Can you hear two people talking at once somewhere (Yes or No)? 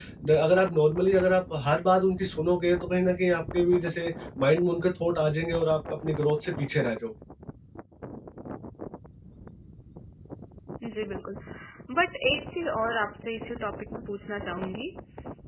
No